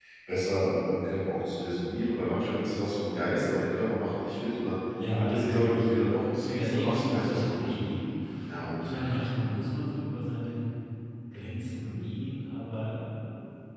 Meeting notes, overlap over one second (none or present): present